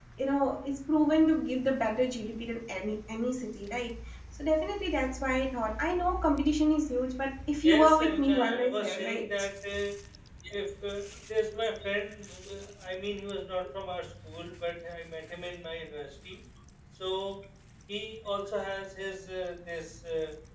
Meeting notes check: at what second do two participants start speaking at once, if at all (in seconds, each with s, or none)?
7.6 s